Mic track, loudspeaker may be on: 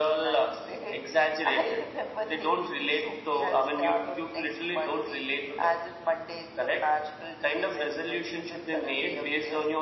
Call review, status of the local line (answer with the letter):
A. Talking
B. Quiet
B